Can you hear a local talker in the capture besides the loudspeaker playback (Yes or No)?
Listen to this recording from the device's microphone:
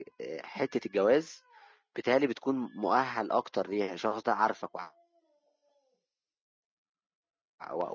Yes